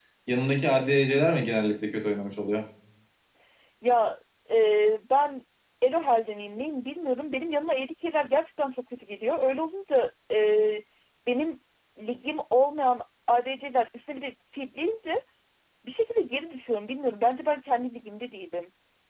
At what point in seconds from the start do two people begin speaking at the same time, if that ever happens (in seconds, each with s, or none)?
none